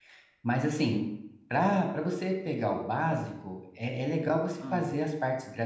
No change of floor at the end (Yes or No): Yes